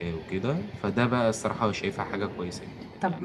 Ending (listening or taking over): taking over